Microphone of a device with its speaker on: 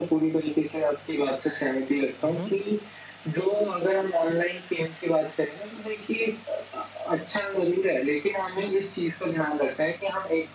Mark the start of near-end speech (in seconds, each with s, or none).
2.2 s